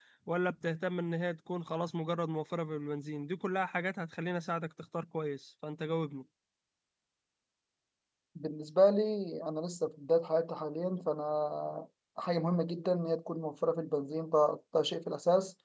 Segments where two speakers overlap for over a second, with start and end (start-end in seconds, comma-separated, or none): none